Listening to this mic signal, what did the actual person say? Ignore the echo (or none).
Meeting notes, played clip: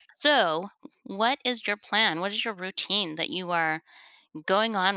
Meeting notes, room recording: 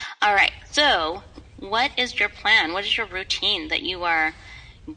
none